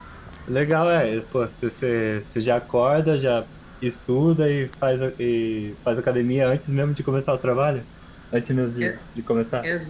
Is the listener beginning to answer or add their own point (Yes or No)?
Yes